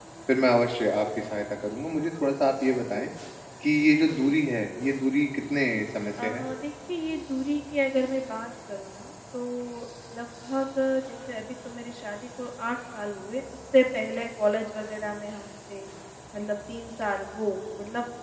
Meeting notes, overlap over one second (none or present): none